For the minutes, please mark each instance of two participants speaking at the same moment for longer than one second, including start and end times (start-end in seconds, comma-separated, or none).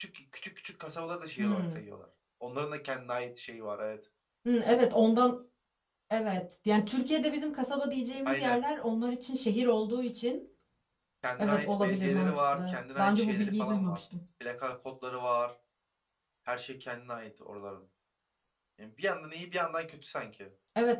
11.4-14.0